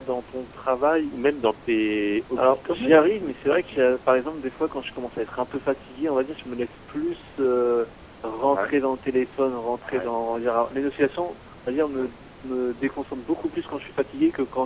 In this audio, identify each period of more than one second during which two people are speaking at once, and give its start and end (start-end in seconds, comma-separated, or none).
2.4-4.0